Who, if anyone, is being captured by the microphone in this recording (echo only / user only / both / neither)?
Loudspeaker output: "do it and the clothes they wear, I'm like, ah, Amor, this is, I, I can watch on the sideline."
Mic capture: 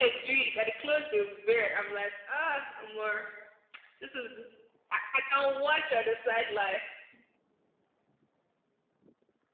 echo only